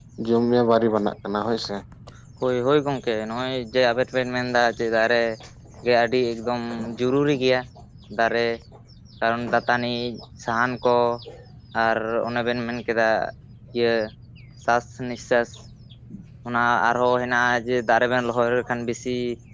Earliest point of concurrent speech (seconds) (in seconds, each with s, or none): none